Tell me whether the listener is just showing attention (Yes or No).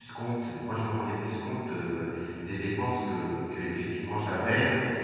Yes